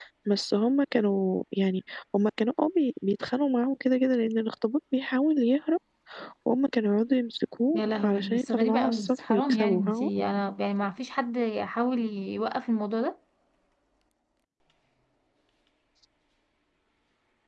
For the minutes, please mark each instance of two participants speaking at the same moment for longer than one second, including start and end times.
7.8-10.1

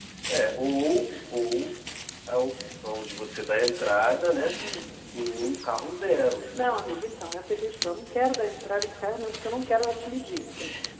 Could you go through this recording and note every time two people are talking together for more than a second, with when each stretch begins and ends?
none

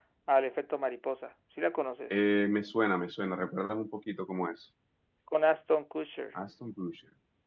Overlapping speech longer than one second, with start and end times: none

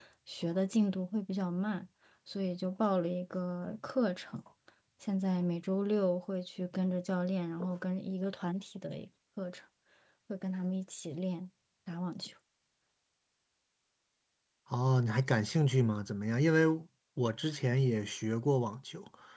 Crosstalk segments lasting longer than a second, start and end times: none

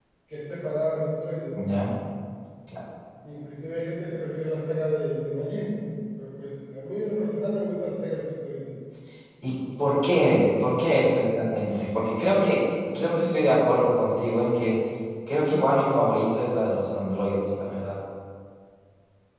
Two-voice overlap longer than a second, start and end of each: none

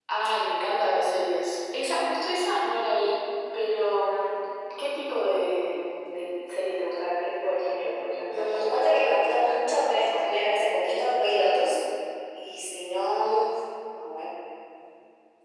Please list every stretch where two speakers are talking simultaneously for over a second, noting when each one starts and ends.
8.3-10.2

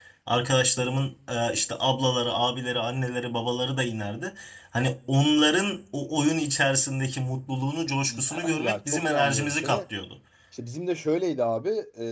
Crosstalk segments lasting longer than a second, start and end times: 8.1-9.8

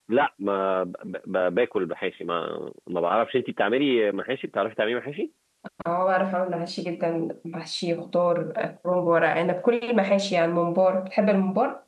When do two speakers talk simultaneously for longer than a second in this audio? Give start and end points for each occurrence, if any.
none

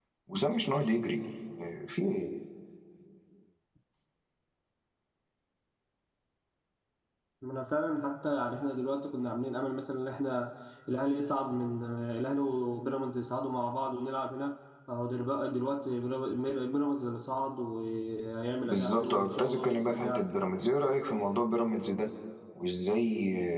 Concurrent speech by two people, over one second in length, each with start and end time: 18.7-20.3

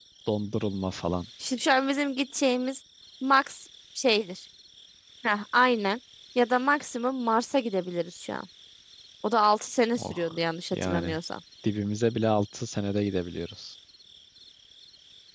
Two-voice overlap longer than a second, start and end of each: none

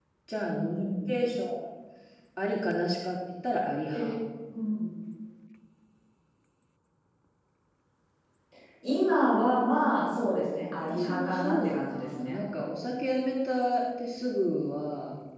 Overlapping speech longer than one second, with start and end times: 10.9-12.4

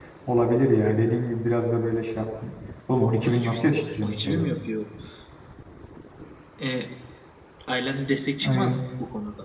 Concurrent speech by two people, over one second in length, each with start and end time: 3.2-4.5

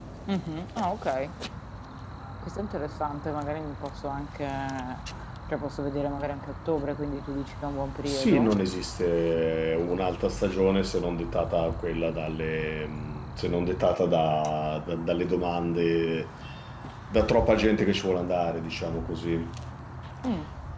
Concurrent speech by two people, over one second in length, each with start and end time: none

